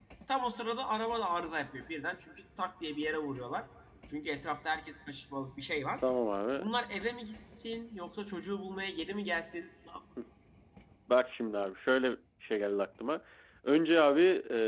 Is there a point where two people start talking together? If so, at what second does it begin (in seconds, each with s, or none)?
none